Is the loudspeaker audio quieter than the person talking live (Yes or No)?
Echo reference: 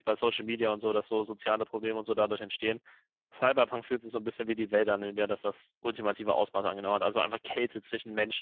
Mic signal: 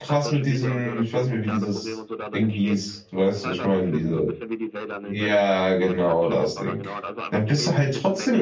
Yes